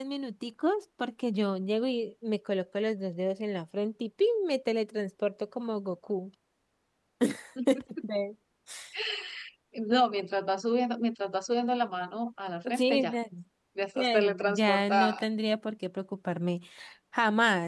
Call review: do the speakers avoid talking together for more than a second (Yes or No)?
No